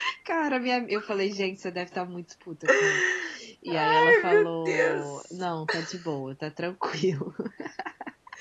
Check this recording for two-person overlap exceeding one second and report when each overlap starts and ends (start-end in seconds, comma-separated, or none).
3.7-5.4